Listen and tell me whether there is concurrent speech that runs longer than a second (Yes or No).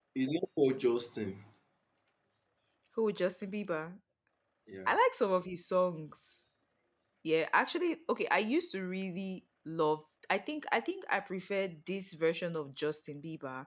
No